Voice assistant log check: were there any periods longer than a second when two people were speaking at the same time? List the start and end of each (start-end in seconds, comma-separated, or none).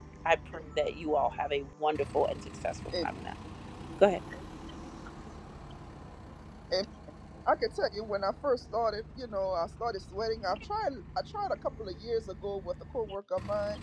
none